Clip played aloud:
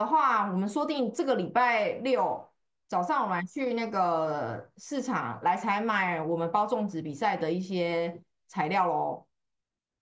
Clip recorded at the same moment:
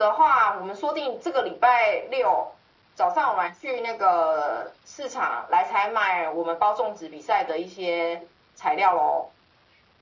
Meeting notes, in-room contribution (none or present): none